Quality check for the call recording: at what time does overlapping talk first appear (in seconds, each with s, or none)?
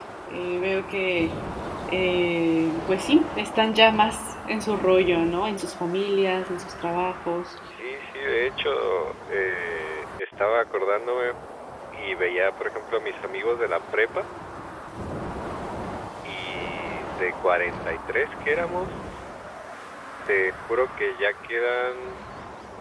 none